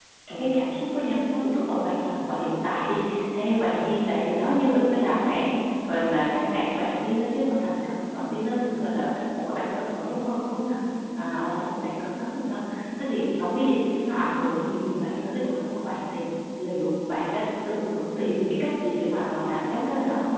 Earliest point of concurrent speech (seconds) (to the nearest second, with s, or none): none